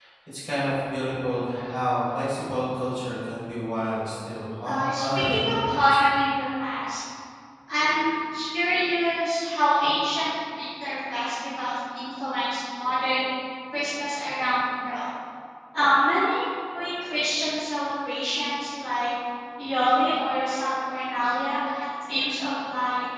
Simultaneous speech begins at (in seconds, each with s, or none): 4.7 s